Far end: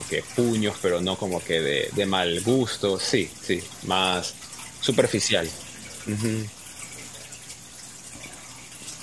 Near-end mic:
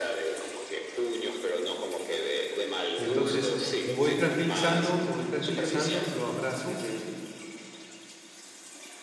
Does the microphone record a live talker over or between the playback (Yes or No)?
Yes